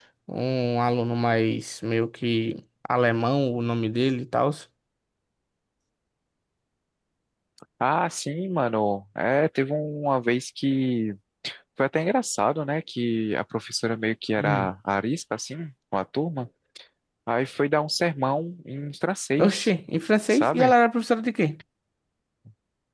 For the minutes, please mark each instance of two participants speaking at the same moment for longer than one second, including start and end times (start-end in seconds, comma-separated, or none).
none